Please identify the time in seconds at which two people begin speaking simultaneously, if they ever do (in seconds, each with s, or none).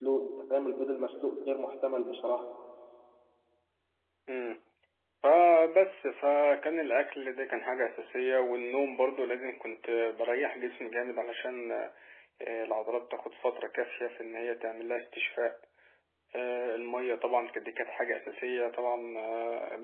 none